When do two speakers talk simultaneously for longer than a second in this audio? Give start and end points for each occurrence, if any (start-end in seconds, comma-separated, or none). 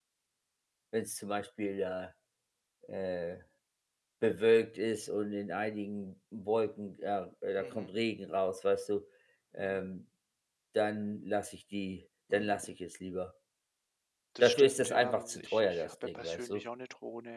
14.4-16.6